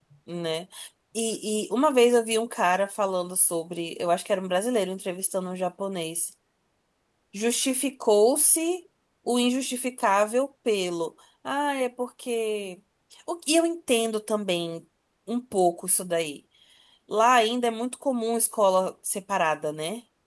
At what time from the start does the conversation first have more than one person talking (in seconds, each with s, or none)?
none